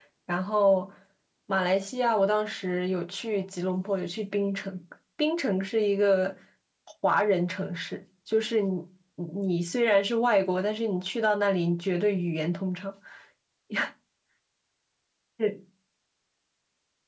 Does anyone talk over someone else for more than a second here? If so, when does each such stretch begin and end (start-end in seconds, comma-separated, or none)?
none